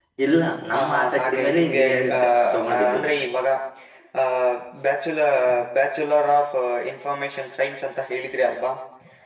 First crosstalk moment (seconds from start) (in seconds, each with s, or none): 0.7 s